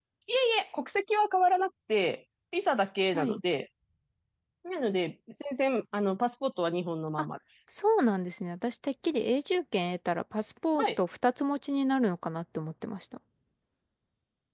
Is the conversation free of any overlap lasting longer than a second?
Yes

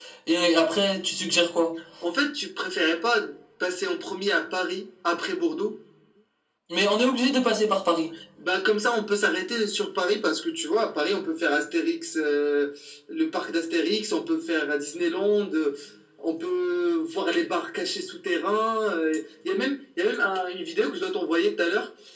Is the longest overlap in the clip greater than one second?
No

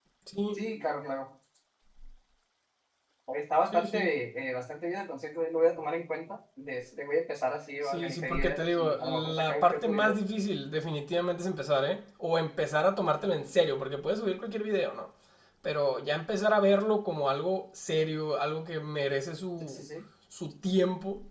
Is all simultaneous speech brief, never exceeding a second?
No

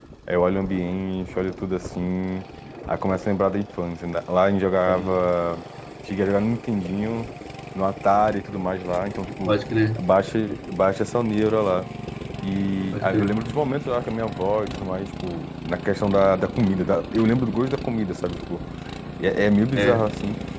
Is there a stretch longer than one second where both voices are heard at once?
No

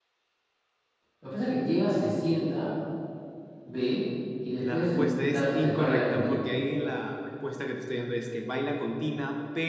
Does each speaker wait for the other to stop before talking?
No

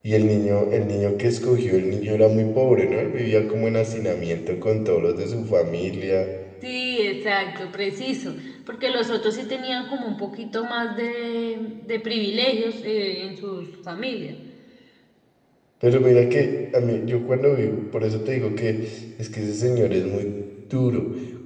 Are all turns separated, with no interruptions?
Yes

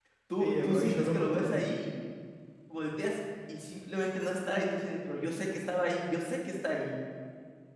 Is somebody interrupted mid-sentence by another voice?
Yes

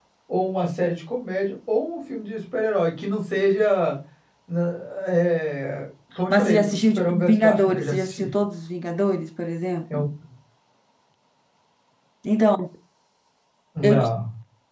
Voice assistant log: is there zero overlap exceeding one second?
No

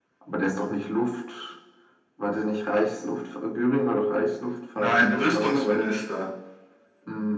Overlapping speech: Yes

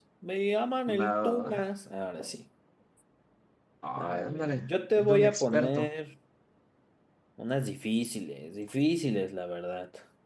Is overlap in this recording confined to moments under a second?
No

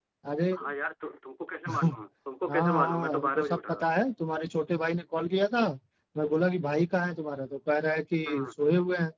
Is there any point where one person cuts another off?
Yes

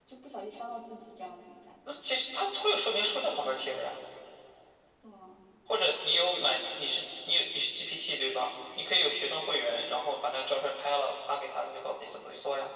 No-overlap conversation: Yes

